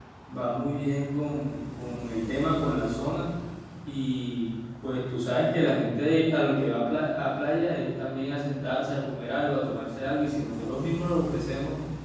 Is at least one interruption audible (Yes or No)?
No